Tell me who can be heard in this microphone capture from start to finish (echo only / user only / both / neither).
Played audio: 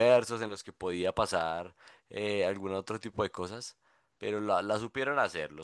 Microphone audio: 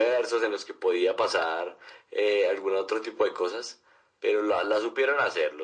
echo only